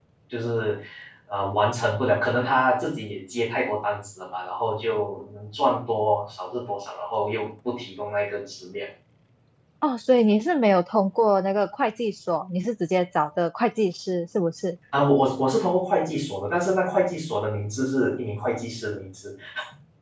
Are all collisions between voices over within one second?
Yes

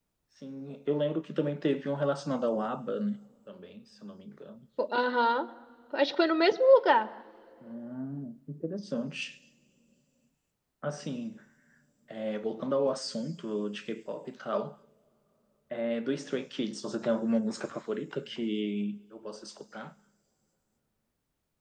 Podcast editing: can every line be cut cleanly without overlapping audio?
Yes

